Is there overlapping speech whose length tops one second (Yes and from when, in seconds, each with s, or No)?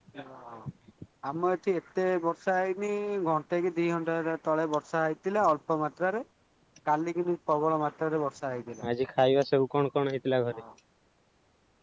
No